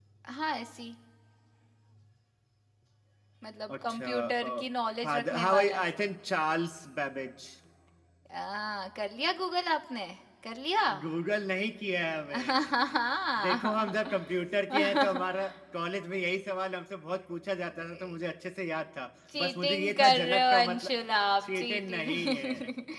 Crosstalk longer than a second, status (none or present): present